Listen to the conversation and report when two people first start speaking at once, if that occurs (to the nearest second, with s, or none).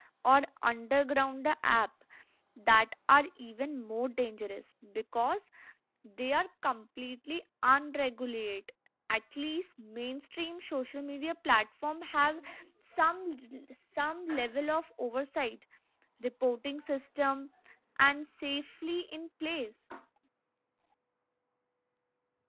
none